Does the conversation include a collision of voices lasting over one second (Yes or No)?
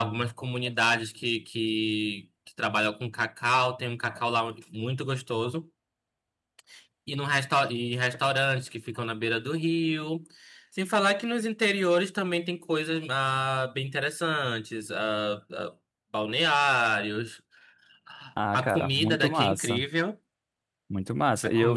Yes